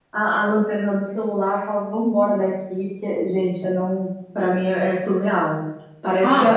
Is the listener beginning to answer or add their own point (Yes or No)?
No